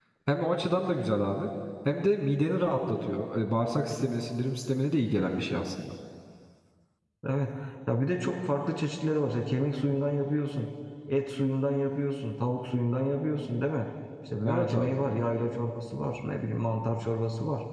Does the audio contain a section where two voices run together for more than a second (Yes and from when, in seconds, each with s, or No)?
No